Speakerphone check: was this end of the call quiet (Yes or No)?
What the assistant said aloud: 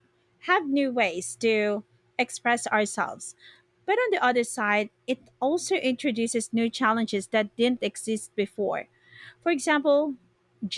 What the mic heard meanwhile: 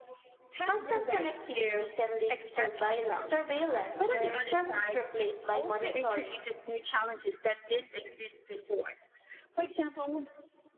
No